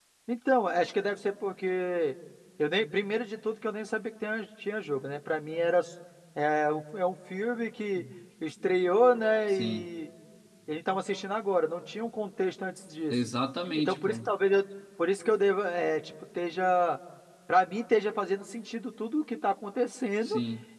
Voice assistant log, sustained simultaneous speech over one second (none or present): none